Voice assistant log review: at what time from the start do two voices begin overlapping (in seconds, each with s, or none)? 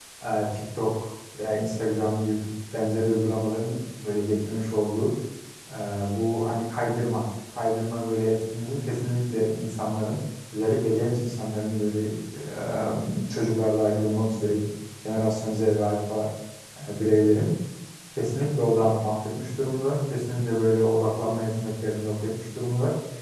none